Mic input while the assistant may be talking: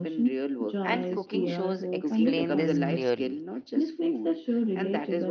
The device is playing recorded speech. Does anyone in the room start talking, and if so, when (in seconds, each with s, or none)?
0.8 s